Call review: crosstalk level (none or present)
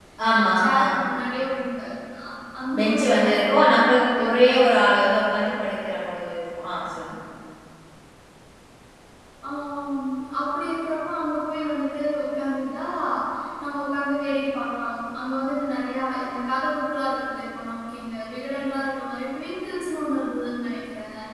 present